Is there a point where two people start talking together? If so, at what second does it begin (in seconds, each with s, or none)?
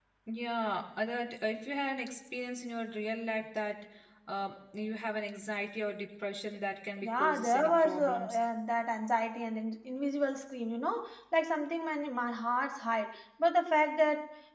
7.0 s